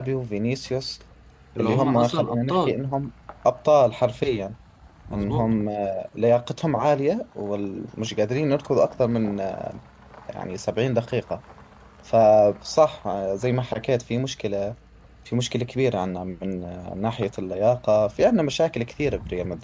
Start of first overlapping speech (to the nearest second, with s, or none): 2 s